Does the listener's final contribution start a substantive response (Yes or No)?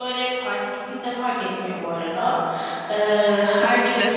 No